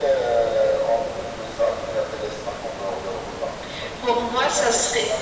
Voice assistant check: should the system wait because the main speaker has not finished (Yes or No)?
No